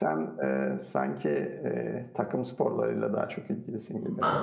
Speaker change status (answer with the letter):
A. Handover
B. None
A